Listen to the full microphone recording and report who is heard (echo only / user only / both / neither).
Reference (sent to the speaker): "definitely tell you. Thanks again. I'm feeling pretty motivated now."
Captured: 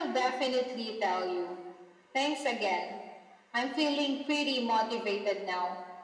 echo only